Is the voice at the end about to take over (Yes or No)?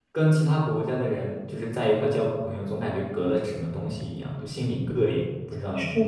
Yes